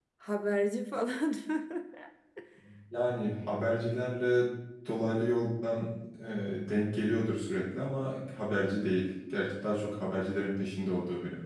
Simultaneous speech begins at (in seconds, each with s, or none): none